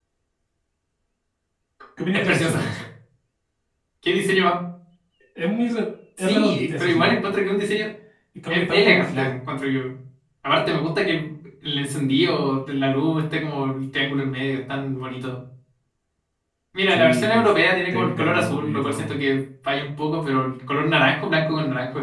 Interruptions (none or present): present